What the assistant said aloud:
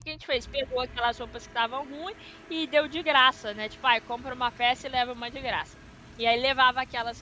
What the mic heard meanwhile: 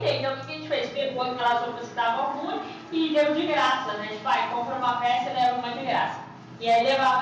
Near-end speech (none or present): none